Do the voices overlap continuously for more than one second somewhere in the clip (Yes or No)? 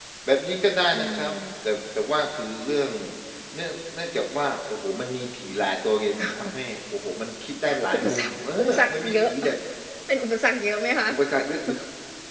Yes